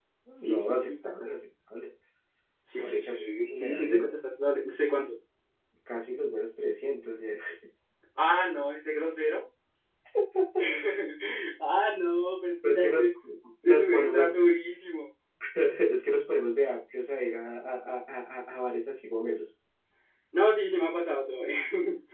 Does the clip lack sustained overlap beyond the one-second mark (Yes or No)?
No